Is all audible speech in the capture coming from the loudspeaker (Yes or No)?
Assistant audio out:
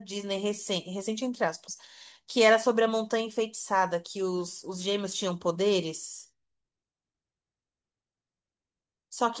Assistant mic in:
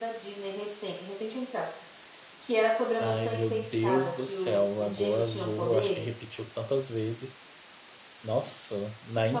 No